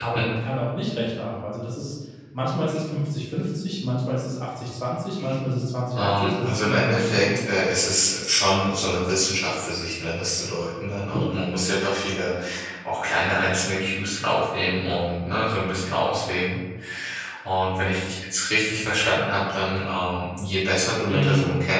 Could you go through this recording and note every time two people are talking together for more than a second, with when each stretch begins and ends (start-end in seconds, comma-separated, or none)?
6.0-7.6